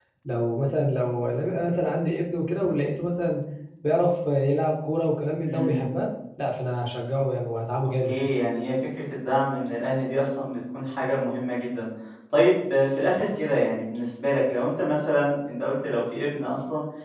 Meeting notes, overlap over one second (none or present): none